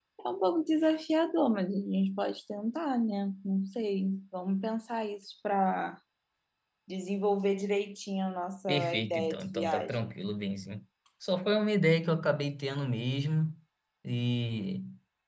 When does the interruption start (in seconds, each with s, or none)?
8.7 s